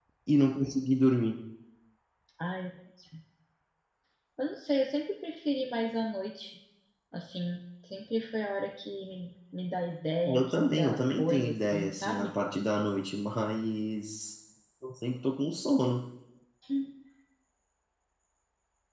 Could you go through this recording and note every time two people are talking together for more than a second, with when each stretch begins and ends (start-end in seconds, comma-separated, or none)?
10.3-12.3